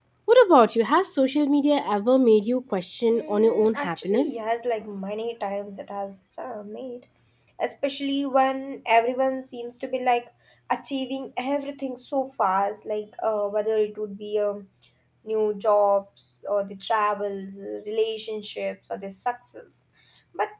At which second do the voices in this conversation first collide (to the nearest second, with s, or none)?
3 s